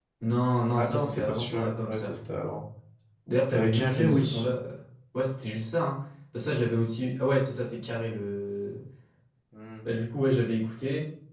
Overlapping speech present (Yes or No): Yes